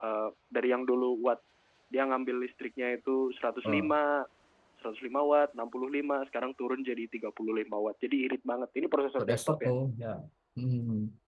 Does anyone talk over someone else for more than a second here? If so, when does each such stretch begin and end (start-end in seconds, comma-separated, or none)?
none